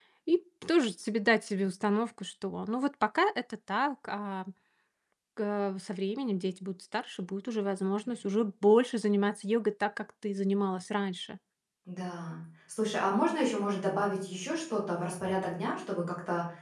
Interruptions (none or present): none